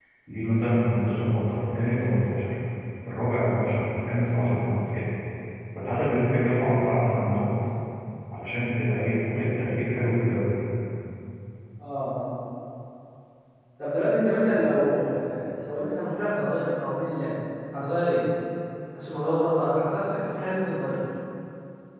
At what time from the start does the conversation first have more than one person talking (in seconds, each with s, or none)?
none